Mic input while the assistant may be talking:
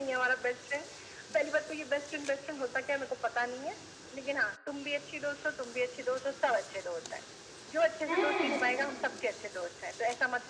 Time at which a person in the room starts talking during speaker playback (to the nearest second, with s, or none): 8 s